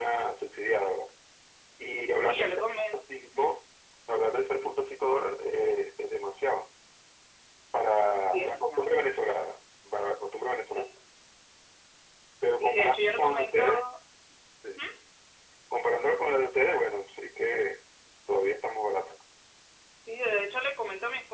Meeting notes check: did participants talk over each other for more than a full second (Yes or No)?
Yes